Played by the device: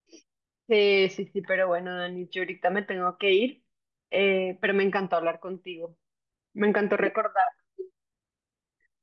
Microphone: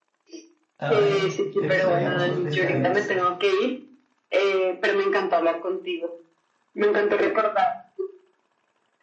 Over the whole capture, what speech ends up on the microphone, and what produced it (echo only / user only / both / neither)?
both